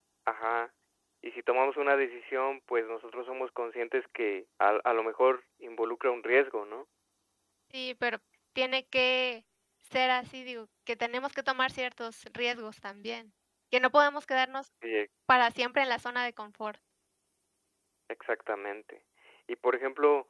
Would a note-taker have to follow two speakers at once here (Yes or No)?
No